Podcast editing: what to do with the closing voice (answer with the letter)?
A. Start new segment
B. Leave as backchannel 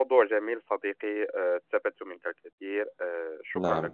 A